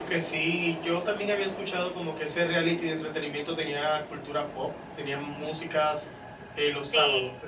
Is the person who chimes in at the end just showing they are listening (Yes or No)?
No